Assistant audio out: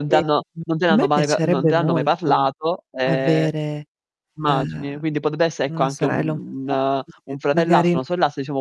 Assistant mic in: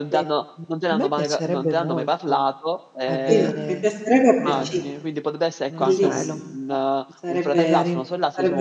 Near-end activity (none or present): present